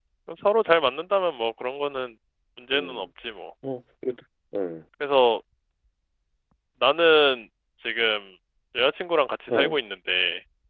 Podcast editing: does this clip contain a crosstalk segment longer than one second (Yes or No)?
No